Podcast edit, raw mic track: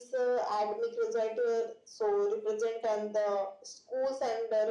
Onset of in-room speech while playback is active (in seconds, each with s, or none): none